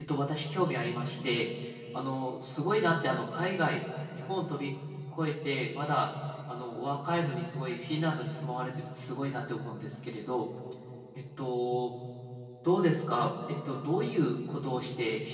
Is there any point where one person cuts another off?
No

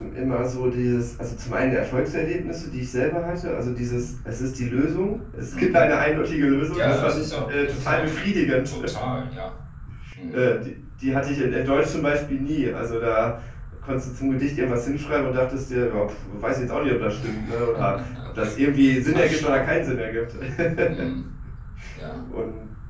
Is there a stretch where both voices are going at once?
Yes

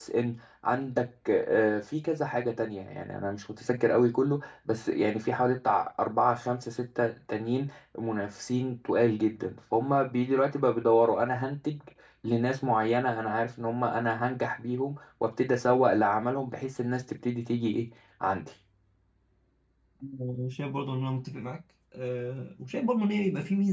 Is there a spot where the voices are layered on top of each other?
No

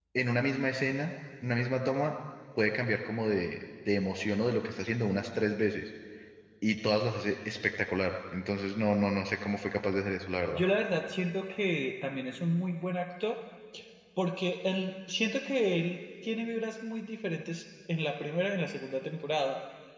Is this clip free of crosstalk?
Yes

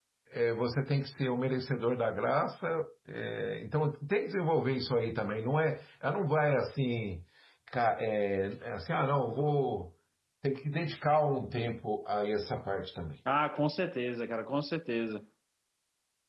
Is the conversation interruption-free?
Yes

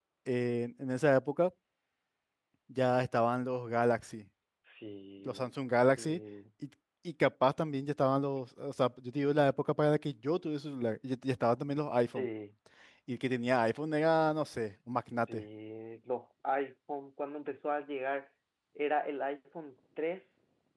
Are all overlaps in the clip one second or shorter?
Yes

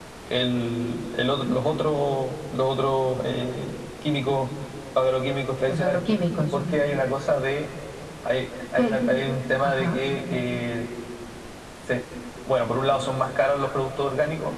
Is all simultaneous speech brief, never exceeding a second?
Yes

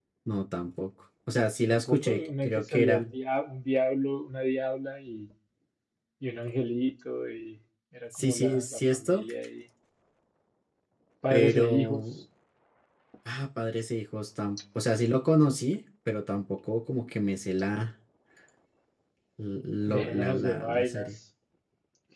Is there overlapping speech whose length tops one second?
Yes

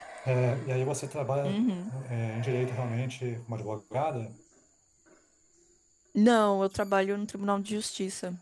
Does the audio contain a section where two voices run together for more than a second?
No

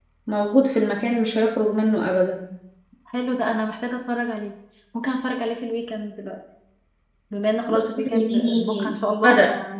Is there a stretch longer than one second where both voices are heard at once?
Yes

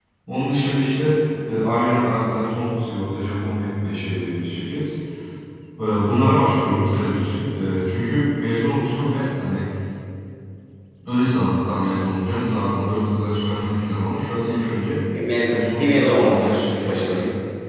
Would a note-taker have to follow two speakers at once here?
Yes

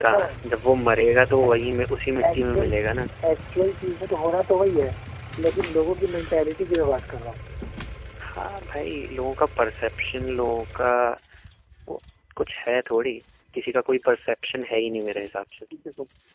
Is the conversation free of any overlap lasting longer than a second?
Yes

